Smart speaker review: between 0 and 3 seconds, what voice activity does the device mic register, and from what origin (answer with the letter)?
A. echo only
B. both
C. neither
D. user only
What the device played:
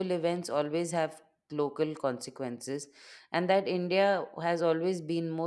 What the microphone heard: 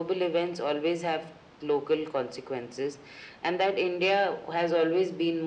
A